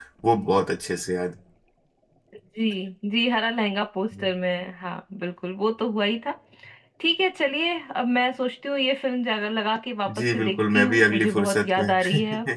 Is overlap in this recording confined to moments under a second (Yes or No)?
No